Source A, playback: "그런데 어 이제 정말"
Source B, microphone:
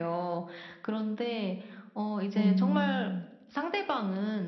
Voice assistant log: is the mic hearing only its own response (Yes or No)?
No